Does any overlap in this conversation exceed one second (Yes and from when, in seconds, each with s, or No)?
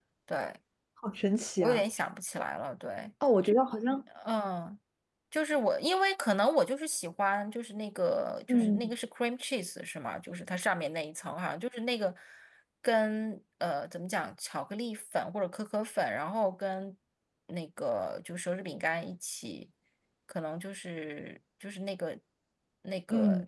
No